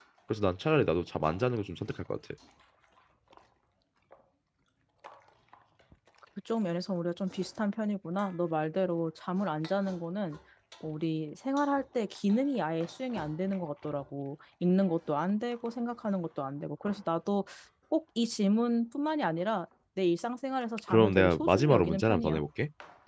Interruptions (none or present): present